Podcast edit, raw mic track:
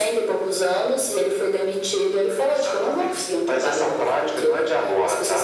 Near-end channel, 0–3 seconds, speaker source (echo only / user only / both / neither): echo only